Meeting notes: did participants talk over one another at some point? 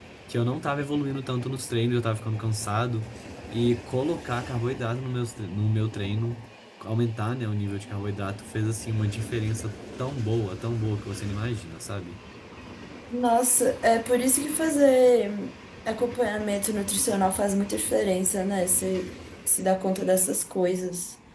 No

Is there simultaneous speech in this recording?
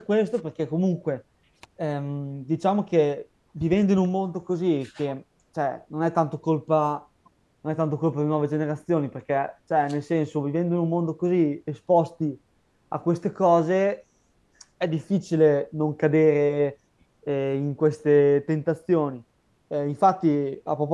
No

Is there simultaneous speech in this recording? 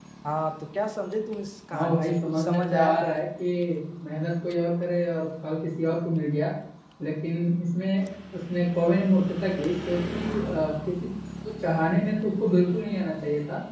Yes, from 1.7 s

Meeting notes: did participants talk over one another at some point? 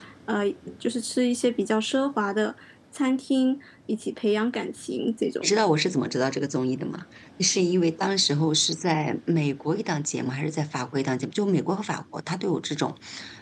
No

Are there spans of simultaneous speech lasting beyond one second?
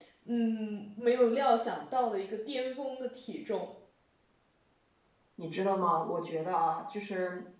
No

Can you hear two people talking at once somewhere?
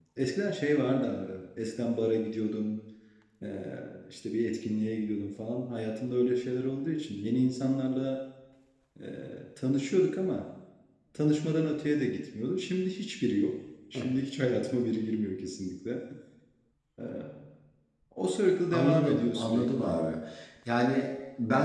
Yes, from 18.7 s

